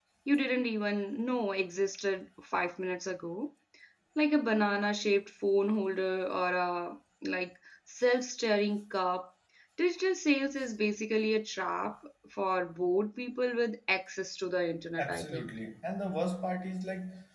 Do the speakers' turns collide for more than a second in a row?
No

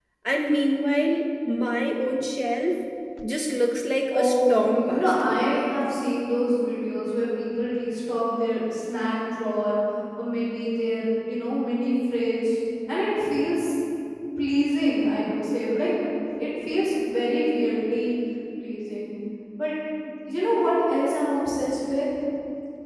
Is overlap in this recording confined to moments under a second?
No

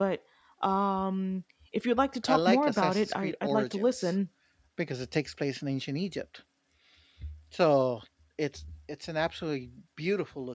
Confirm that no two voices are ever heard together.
No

